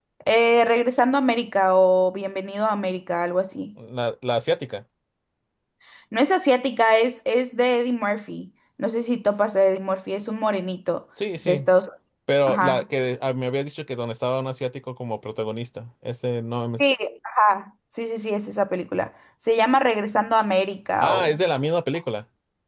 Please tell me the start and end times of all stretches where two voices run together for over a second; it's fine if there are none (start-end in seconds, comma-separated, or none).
none